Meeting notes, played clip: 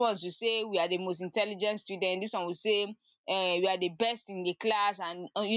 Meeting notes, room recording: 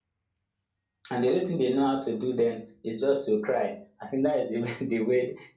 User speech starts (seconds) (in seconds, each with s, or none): 1.1 s